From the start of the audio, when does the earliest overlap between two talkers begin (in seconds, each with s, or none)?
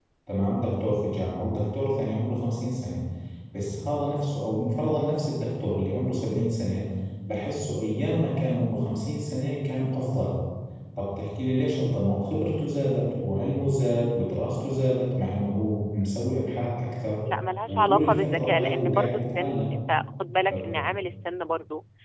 17.7 s